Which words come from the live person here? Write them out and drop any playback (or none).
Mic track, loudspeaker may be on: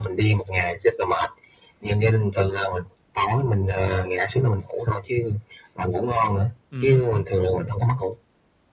Ừm hứm, ừm hứm.